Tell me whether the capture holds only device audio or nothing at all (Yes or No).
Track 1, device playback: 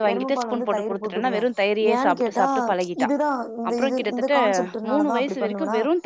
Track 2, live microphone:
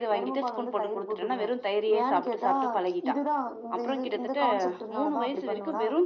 Yes